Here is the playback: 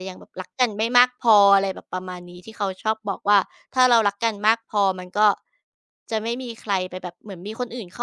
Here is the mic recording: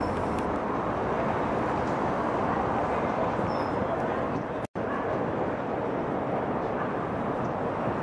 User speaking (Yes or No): No